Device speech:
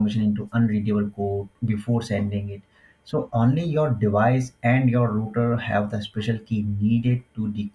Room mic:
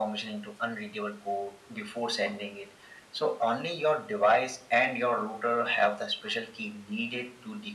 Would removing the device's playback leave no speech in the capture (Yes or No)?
Yes